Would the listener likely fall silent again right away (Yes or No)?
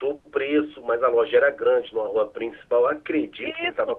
No